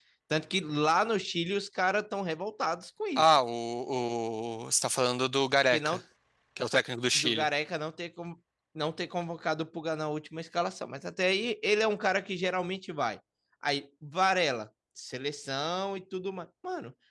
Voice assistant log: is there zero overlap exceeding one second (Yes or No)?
Yes